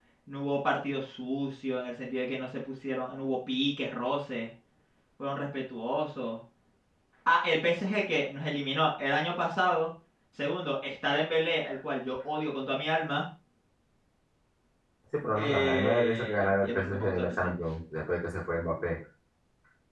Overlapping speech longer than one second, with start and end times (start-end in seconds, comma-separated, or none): 15.4-17.5